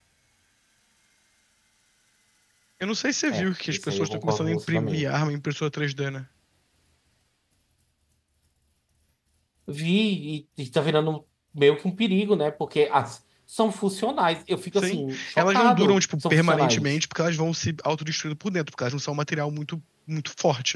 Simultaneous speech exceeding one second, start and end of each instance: 3.3-5.0, 14.8-17.0

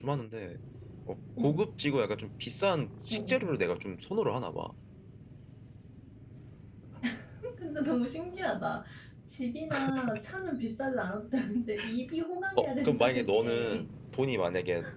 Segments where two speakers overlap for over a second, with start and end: 12.6-13.8

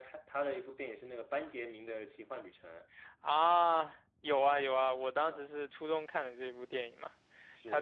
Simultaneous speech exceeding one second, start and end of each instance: 4.2-5.5

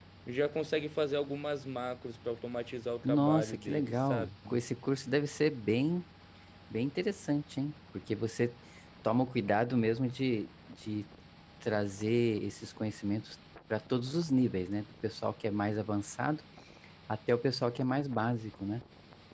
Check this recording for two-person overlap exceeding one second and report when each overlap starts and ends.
3.0-4.3

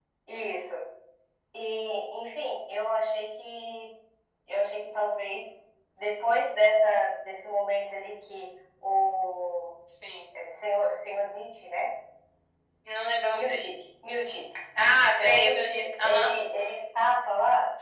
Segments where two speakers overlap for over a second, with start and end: 15.0-16.3

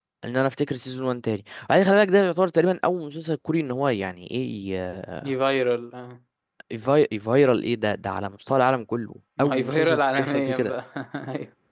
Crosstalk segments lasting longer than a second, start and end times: 9.4-10.7

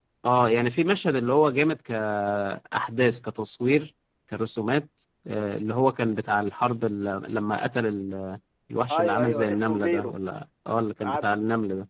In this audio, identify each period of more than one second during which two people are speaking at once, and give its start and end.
8.9-10.1

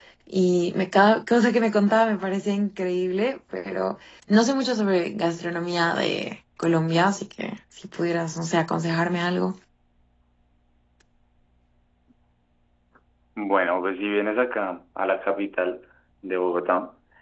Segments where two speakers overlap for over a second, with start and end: none

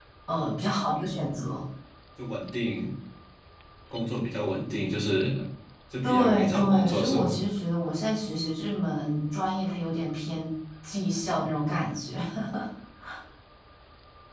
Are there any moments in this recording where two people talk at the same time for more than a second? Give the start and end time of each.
6.0-7.4

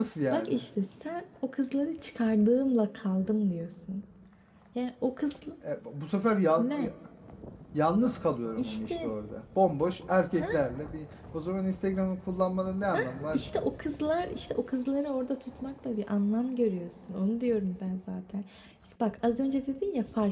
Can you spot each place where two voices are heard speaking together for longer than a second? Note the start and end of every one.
none

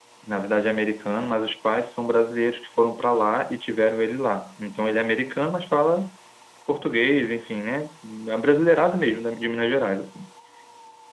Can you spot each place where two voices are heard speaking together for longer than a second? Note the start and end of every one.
none

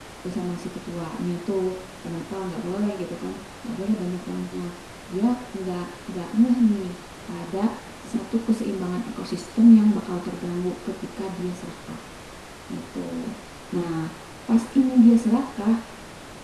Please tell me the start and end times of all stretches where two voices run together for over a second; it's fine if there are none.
none

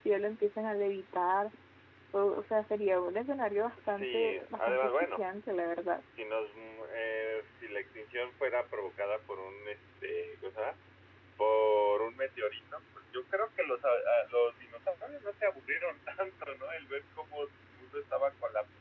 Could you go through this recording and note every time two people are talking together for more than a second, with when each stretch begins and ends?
4.0-5.2

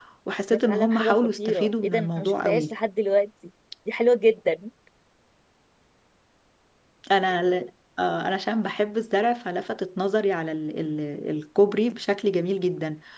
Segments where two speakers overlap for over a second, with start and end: 0.5-2.7

